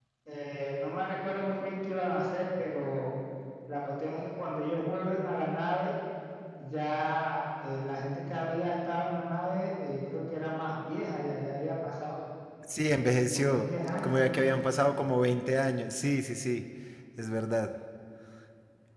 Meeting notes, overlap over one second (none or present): present